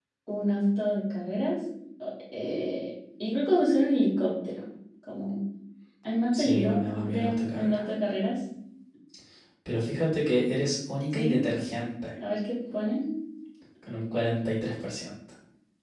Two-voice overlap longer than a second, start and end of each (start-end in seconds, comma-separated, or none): 6.4-7.8